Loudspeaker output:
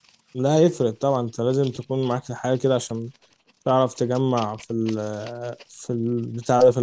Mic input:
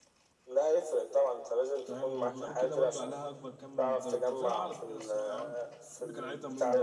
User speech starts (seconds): 1.9 s

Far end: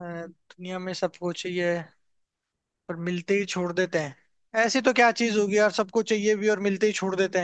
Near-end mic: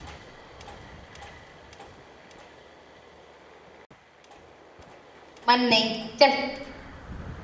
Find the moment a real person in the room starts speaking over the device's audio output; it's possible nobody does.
5.5 s

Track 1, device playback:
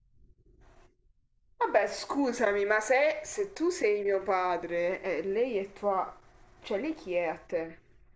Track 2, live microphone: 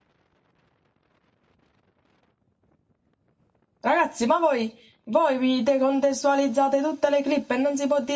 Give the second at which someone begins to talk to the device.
3.8 s

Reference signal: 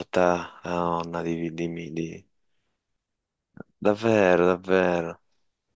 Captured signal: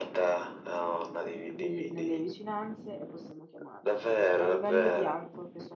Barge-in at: 1.5 s

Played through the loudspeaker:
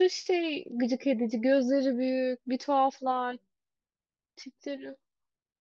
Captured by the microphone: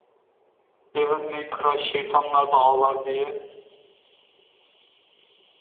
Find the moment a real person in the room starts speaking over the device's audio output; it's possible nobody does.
1.0 s

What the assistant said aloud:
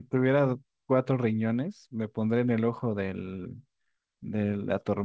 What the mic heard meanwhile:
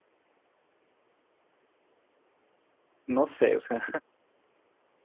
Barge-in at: 3.0 s

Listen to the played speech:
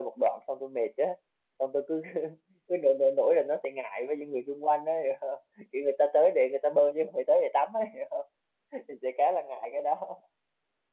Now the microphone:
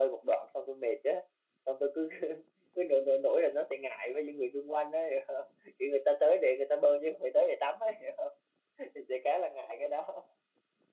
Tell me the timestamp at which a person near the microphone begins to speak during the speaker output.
none

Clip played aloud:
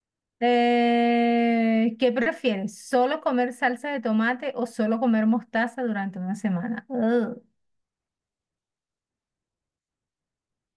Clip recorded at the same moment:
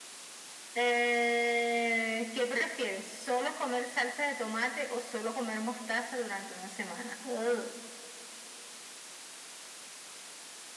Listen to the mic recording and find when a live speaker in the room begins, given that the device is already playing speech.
none

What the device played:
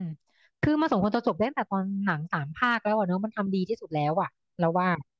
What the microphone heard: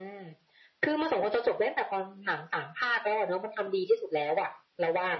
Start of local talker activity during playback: none

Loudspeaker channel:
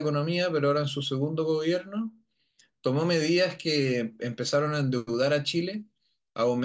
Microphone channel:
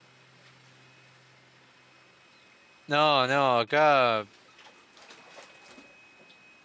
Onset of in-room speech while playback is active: 2.9 s

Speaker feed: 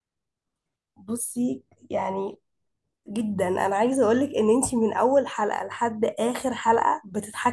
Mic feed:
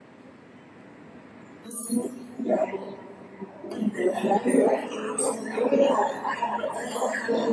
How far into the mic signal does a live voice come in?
none

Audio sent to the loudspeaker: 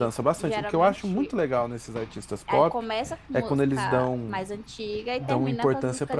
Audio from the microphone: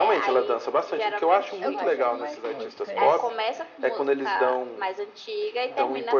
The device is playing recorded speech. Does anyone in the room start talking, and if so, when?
1.6 s

